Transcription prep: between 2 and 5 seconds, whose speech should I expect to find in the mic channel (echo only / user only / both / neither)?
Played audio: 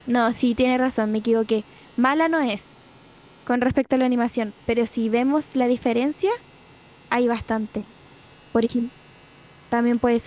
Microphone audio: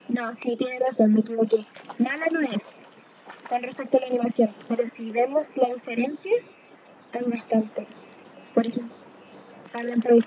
echo only